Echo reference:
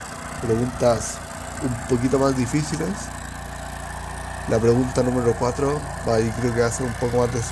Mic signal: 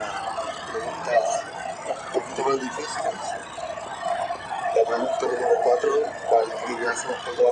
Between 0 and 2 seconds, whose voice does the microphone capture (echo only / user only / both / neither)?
echo only